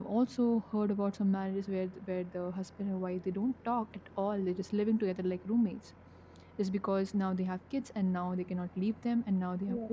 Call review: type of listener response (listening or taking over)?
listening